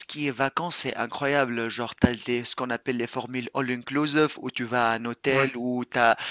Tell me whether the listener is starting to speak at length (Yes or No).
No